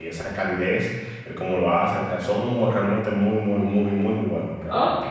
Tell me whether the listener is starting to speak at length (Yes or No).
Yes